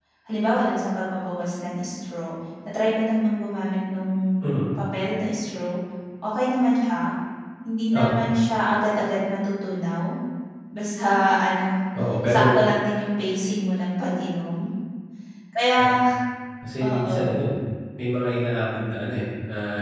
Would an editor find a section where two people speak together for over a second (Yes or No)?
No